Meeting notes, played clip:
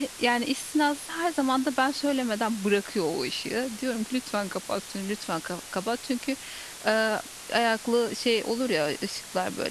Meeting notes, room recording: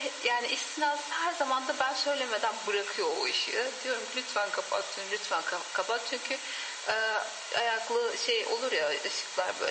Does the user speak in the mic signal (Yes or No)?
No